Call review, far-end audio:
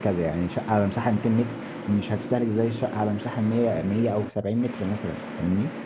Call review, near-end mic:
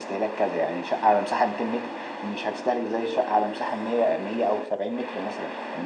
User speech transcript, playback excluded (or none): none